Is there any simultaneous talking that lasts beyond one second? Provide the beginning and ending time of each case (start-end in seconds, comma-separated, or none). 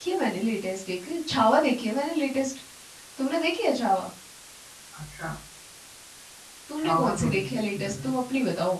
6.8-8.1